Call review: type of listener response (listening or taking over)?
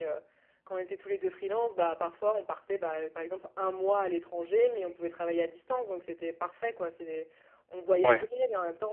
listening